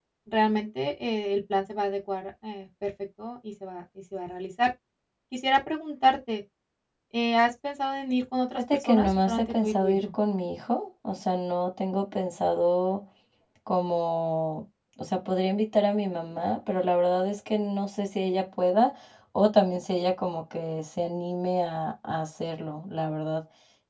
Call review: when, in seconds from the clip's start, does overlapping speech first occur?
8.6 s

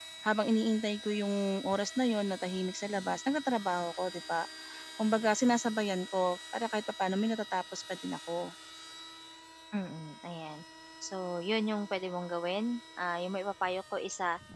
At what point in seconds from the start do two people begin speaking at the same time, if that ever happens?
none

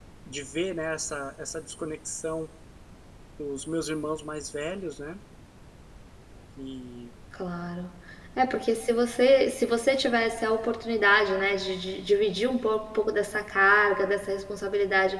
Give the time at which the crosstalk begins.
none

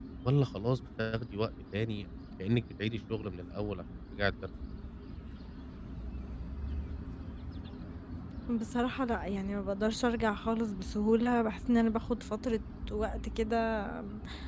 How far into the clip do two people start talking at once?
none

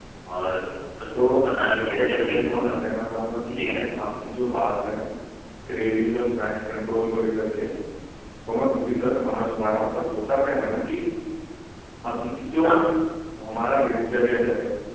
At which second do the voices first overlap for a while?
1.1 s

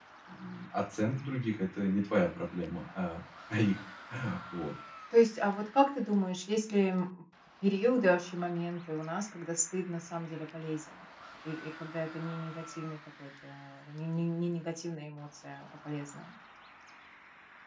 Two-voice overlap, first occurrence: none

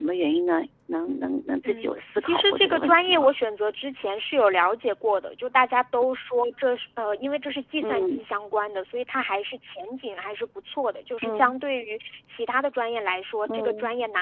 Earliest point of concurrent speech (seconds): 1.6 s

